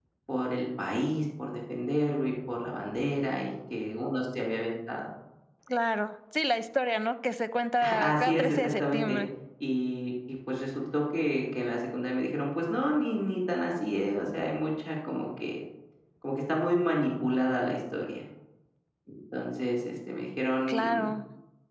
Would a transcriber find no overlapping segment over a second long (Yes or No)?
No